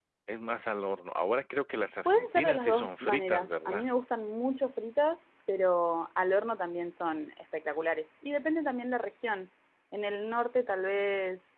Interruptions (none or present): present